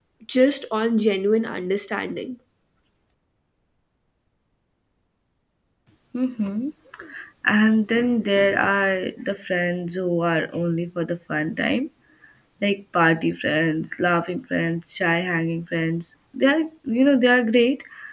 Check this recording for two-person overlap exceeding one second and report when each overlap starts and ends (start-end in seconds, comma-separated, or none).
none